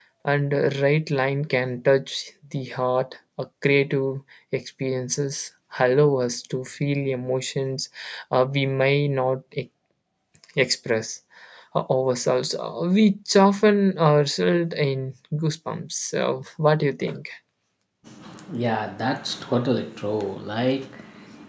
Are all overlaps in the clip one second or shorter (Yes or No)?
Yes